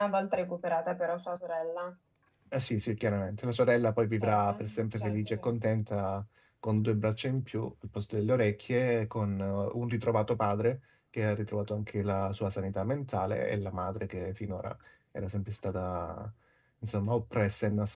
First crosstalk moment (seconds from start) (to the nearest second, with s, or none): 4 s